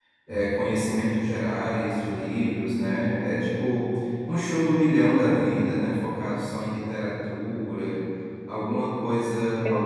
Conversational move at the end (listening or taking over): listening